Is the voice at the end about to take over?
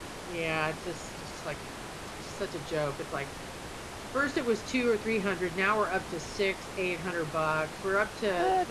No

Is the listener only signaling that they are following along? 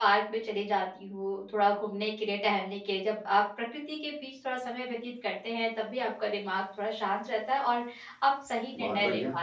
Yes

